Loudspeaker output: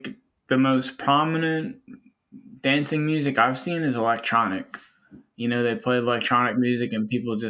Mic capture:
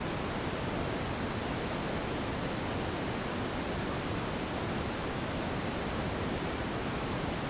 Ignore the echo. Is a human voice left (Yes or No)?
No